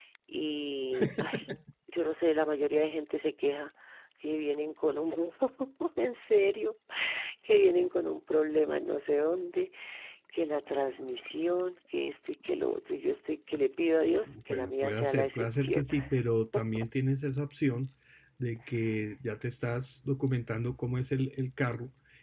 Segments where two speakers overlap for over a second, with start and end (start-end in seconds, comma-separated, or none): 14.3-15.9